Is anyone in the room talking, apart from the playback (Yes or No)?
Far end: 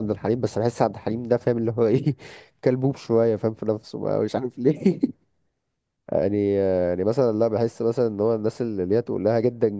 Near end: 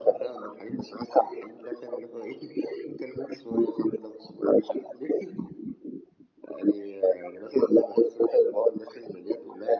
No